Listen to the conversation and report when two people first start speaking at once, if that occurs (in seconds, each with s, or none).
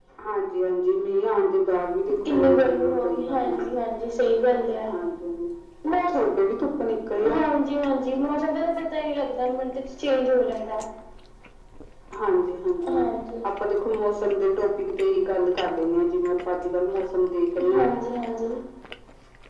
2.2 s